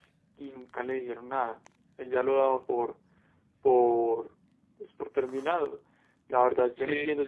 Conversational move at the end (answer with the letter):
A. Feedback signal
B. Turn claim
A